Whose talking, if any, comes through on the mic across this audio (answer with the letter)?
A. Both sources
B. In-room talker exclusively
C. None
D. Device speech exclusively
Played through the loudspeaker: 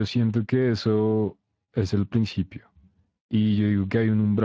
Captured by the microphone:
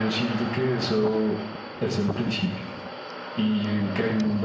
D